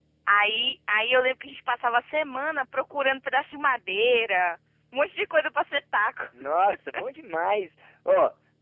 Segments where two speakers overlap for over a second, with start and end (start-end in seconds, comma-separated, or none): none